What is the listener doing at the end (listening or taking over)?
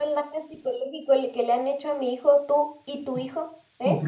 taking over